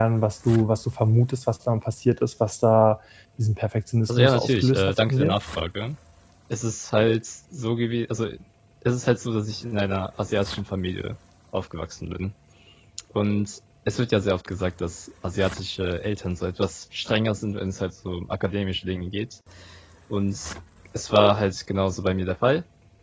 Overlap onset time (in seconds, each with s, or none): 4.1 s